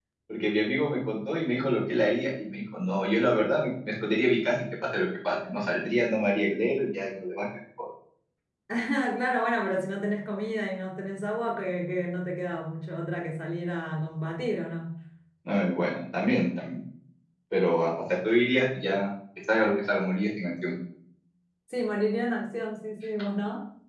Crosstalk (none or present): none